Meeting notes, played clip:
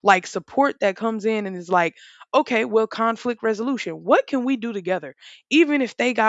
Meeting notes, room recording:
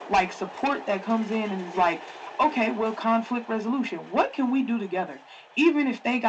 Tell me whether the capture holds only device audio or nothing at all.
Yes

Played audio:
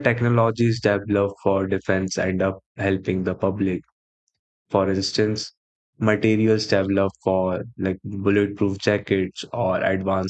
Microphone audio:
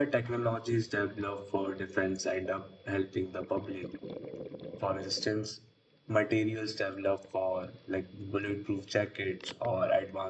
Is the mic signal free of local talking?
Yes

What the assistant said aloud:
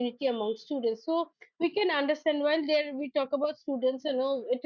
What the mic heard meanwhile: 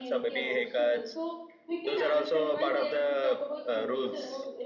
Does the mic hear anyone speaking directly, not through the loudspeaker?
Yes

